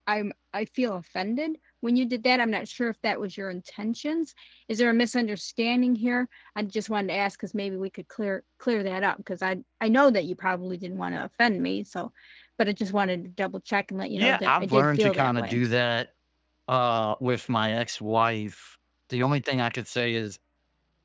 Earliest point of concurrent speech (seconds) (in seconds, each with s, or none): 14.2 s